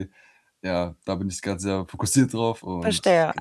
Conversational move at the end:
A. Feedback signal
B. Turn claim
B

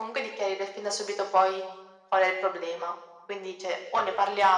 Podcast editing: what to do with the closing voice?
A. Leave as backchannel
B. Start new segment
A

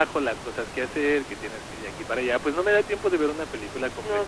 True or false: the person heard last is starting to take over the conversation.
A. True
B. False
A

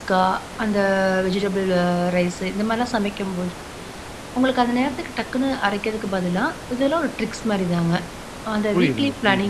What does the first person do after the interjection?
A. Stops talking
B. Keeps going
A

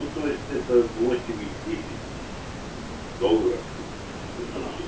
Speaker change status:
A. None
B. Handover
B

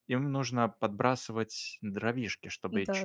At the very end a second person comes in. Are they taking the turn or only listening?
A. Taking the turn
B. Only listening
B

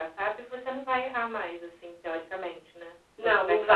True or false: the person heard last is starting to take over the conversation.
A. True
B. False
A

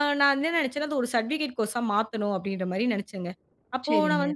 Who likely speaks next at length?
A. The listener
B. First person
B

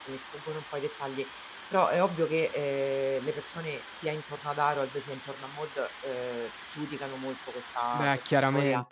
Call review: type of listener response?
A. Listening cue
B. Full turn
B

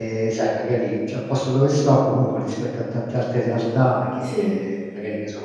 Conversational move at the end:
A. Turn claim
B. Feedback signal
B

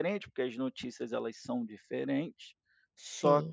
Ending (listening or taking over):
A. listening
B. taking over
A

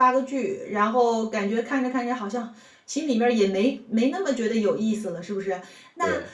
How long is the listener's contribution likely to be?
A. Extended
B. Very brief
B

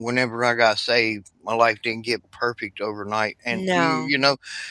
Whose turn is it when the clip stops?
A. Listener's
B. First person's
B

